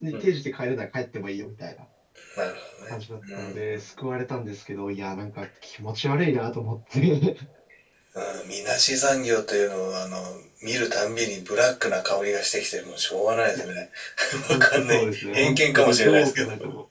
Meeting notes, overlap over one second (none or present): present